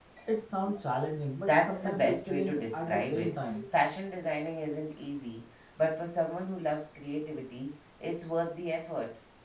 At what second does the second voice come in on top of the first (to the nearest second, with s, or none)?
1 s